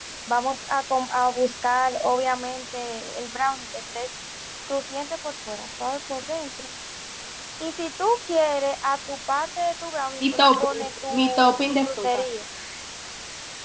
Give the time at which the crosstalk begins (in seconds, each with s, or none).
10.2 s